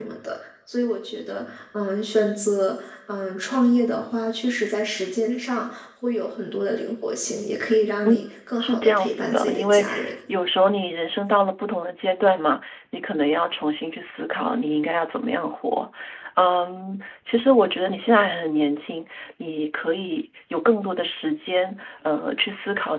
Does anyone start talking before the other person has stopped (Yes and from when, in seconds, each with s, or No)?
Yes, from 8.6 s